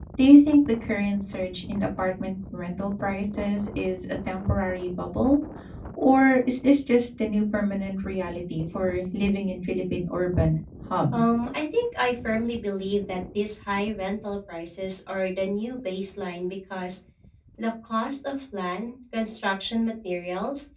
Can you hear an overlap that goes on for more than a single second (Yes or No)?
No